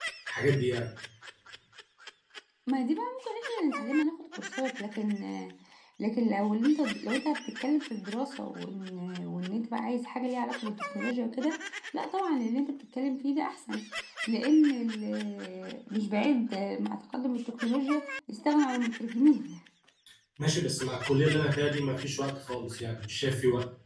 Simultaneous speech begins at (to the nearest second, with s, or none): none